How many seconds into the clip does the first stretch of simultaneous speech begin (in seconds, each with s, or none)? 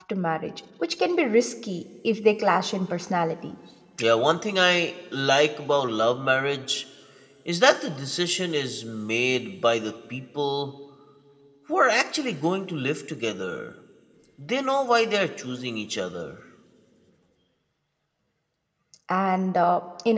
none